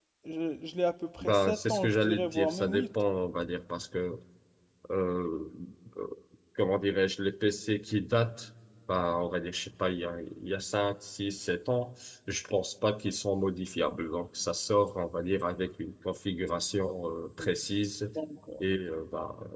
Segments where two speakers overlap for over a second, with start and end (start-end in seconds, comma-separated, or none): 1.2-2.9